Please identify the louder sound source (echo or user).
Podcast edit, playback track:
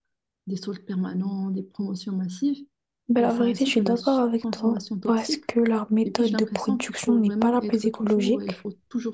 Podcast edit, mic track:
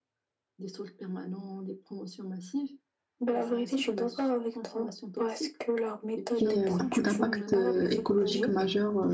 user